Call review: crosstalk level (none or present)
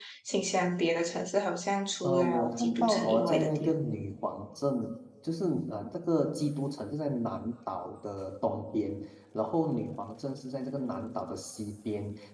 present